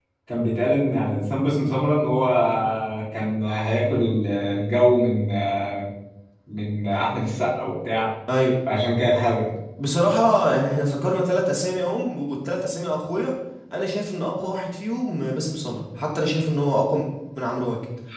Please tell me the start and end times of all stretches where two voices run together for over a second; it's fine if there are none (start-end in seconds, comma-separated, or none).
none